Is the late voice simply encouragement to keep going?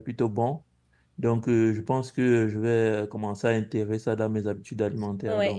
No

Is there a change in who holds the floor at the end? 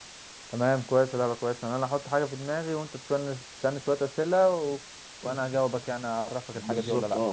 Yes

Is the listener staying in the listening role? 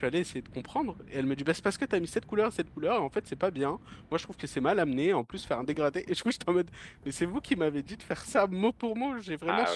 Yes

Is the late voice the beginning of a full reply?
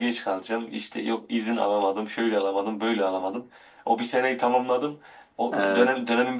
No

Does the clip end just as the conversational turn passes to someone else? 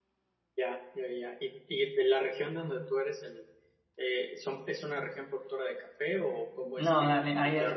Yes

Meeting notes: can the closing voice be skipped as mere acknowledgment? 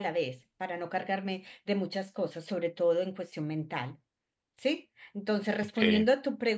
Yes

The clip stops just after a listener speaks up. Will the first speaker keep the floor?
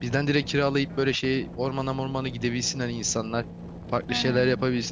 Yes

